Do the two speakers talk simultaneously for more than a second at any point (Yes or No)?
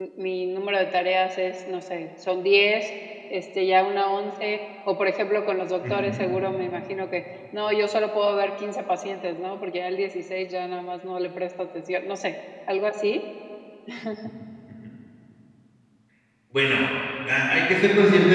No